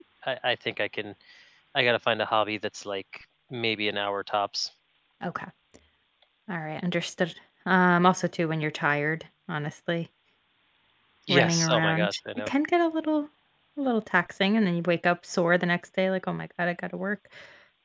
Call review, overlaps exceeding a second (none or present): present